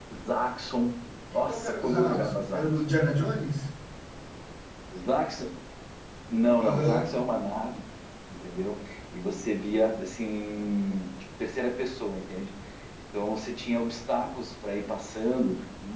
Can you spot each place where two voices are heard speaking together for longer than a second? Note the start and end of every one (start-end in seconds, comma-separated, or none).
1.5-3.2